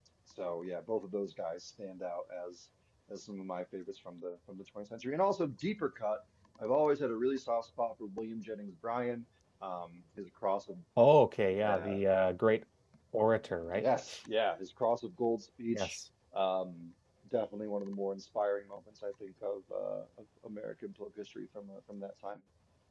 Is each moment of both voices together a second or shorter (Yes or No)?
Yes